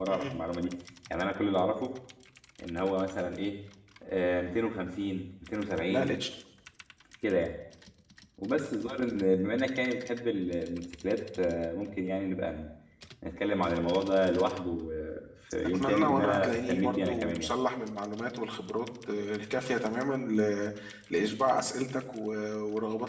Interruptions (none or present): present